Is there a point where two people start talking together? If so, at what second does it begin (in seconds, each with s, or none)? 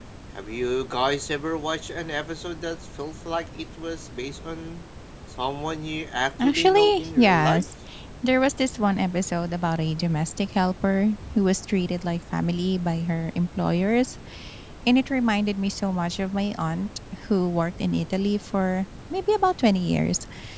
6.4 s